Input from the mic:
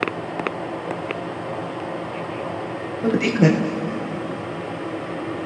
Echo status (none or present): none